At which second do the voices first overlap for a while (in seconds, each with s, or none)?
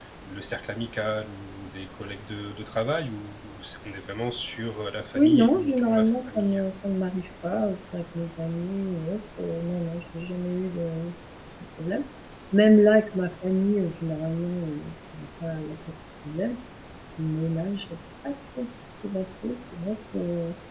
5.1 s